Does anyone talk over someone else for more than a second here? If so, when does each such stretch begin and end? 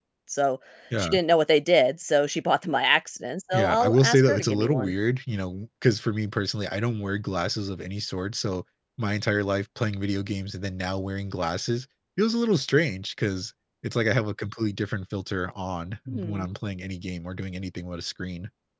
3.5-4.9

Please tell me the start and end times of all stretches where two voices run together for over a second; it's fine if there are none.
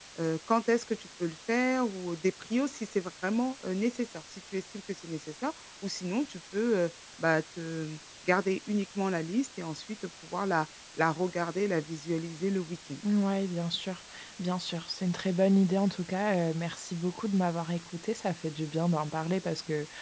none

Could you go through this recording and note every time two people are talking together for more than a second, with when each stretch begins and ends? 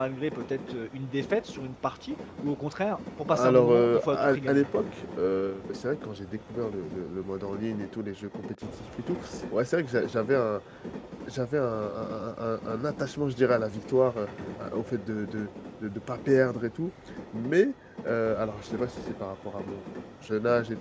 3.3-4.7

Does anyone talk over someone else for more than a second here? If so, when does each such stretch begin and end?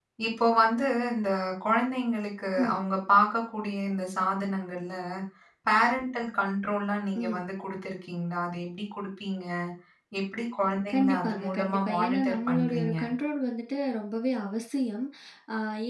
10.9-13.0

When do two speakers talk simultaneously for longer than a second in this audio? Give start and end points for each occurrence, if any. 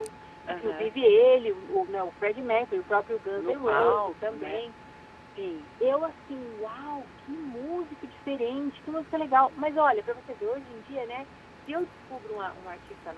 3.3-4.6

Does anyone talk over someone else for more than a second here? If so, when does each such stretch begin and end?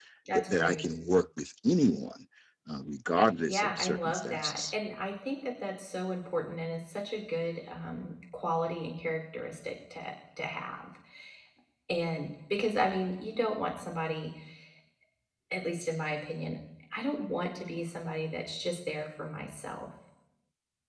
3.5-4.8

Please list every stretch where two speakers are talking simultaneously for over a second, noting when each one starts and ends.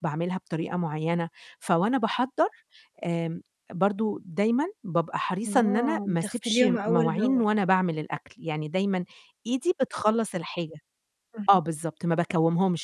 5.5-7.4

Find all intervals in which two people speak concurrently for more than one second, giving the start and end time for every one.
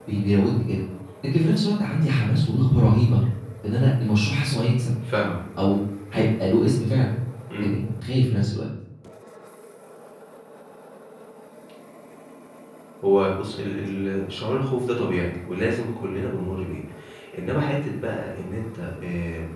none

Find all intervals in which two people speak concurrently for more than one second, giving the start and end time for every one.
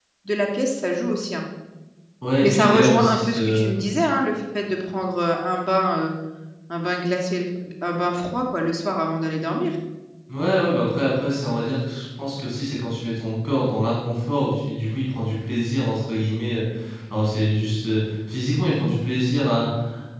2.5-3.8

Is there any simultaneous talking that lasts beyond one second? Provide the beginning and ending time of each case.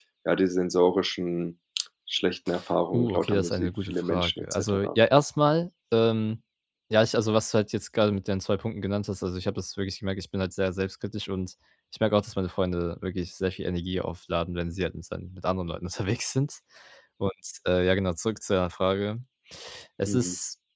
2.9-4.9

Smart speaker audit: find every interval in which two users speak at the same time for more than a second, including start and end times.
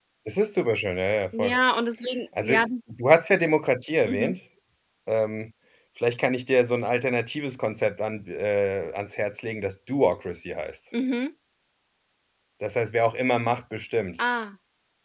none

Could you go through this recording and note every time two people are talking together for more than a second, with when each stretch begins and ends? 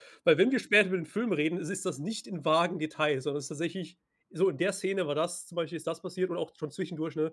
none

